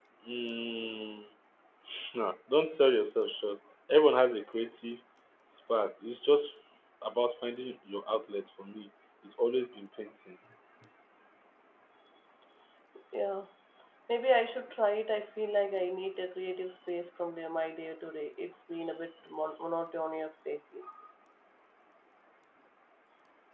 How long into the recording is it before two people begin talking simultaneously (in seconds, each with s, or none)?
none